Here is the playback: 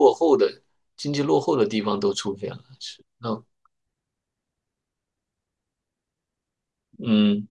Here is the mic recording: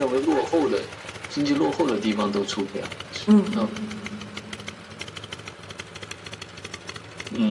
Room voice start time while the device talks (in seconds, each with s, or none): 3.2 s